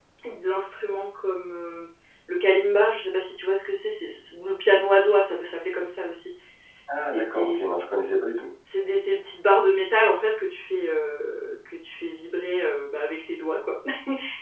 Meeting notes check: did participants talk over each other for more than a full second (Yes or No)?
No